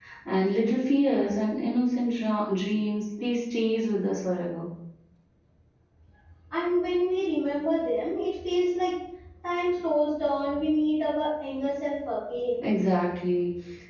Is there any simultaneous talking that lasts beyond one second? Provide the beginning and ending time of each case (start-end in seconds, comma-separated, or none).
none